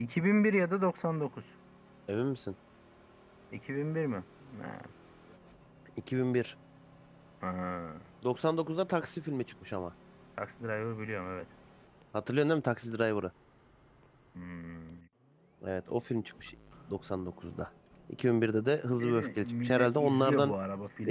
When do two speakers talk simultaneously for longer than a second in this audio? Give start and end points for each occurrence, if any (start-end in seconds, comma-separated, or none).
19.0-20.5